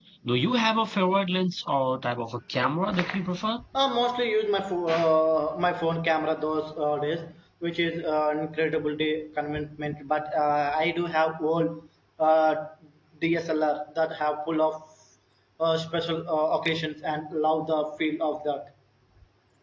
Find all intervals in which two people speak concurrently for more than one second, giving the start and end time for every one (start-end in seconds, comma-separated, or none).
none